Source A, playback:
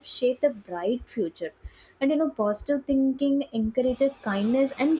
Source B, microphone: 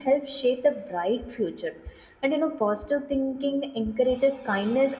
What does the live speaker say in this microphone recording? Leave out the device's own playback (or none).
none